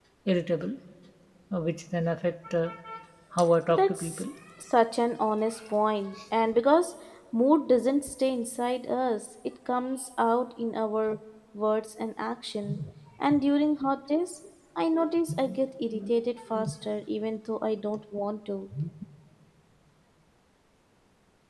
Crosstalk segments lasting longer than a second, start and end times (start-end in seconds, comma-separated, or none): none